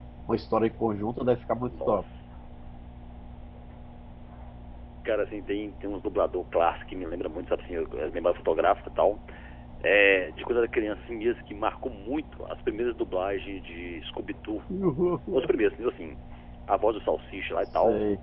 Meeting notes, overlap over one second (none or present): none